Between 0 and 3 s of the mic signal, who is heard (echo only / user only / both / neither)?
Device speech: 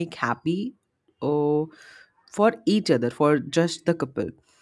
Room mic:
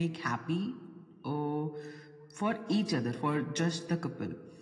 echo only